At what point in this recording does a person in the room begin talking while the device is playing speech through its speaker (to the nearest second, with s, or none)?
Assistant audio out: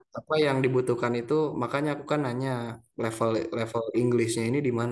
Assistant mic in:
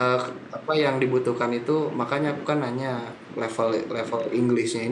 none